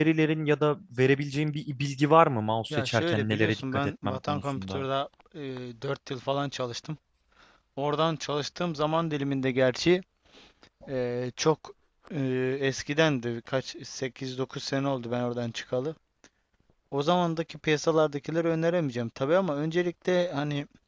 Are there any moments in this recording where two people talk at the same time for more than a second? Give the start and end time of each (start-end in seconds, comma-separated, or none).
2.7-4.8